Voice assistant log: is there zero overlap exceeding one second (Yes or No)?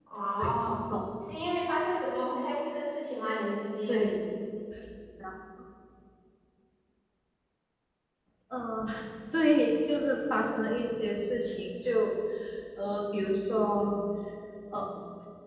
Yes